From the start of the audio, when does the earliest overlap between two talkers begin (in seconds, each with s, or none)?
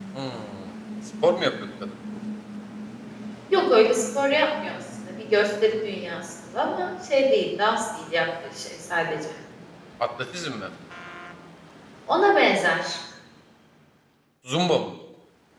none